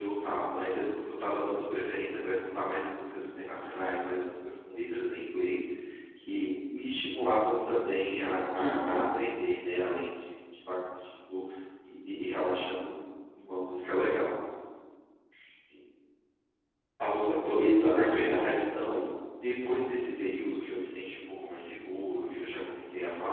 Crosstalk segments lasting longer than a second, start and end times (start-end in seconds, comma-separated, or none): 17.6-18.8